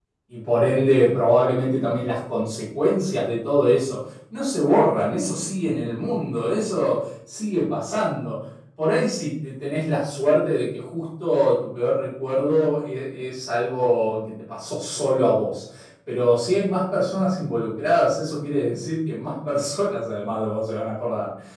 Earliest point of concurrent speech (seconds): none

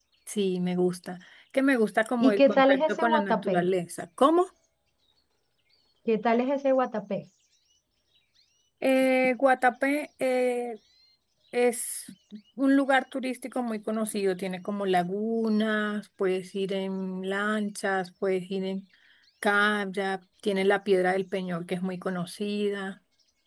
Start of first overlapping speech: 2.2 s

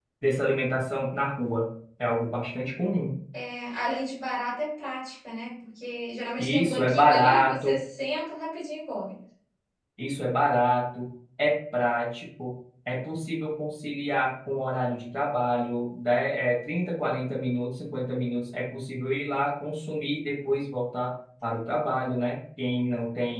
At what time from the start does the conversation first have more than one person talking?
6.4 s

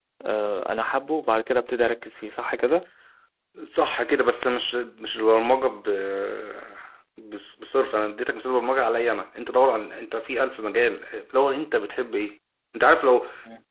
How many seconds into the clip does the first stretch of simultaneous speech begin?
none

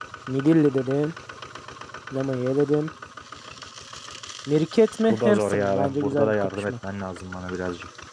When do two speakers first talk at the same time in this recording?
5.1 s

